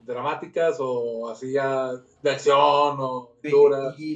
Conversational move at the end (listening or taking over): taking over